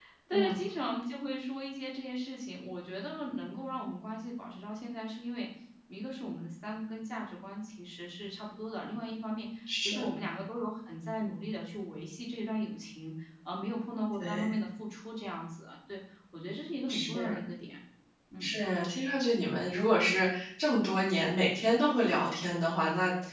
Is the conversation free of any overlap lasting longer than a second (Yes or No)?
Yes